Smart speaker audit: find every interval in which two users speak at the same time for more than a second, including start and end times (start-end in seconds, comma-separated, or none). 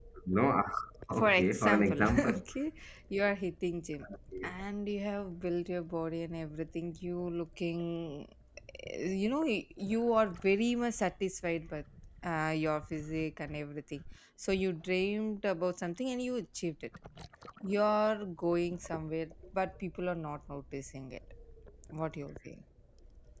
1.2-2.4